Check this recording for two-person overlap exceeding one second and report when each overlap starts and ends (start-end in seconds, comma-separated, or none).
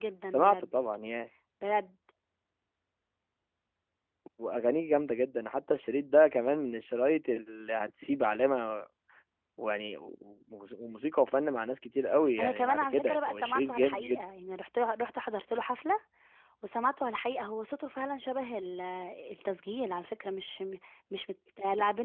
12.4-14.2